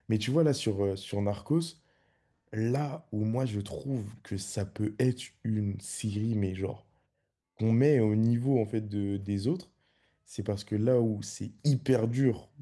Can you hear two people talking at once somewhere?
No

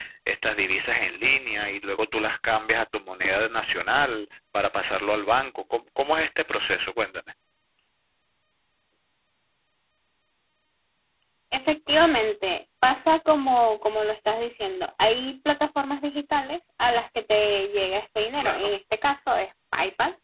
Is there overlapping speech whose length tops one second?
No

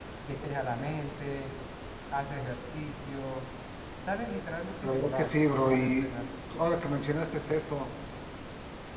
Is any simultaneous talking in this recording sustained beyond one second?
Yes, from 4.8 s

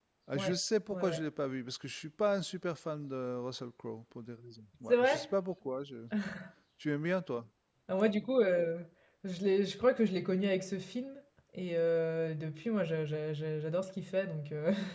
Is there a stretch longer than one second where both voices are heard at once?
No

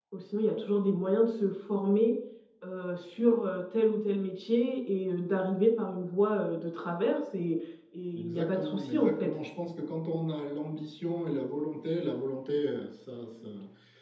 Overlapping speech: Yes, from 8.1 s

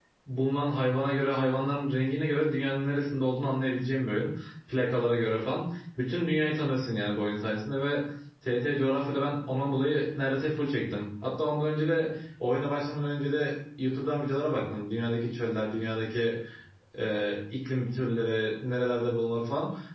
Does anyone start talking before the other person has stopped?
No

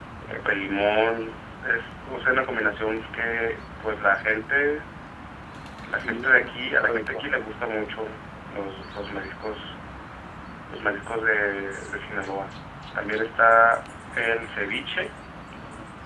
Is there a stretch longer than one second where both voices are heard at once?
Yes, from 6.0 s

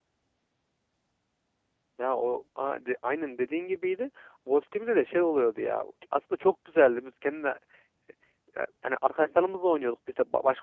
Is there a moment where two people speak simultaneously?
No

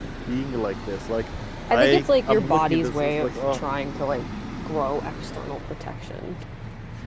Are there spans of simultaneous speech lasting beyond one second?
Yes, from 1.7 s

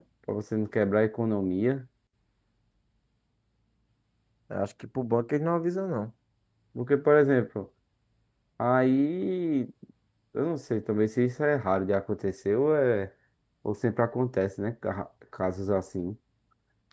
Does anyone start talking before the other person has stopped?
No

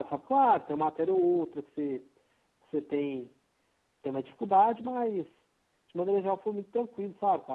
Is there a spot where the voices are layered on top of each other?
No

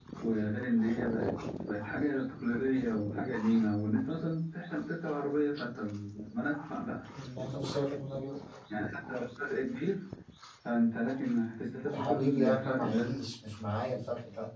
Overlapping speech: Yes, from 11.9 s

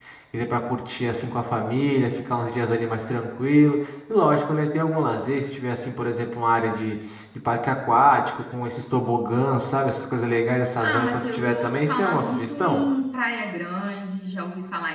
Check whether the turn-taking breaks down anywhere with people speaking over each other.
Yes, from 10.8 s

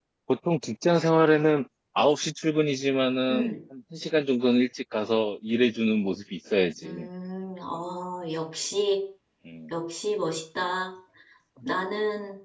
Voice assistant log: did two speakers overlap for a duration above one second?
No

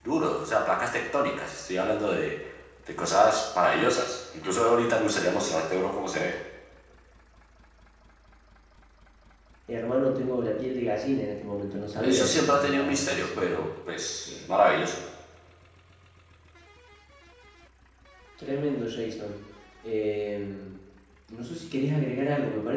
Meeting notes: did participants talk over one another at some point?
Yes, from 12.0 s

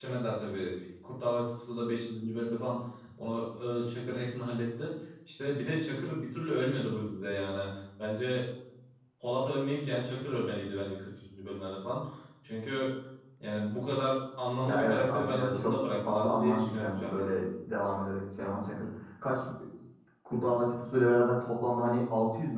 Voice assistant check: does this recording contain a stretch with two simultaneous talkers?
Yes, from 14.7 s

